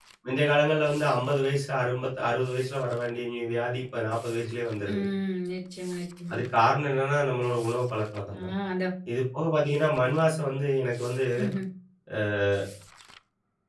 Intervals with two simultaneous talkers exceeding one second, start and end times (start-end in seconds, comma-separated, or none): none